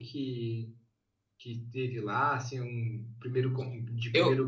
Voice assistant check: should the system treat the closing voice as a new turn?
No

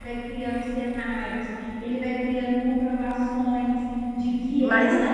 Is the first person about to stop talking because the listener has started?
No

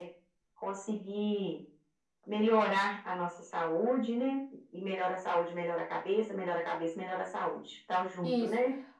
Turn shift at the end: Yes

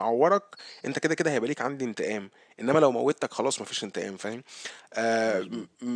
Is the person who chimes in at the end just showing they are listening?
Yes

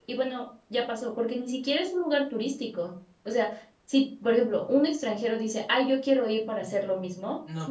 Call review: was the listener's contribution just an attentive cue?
Yes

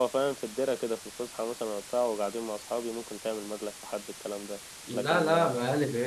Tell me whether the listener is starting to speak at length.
Yes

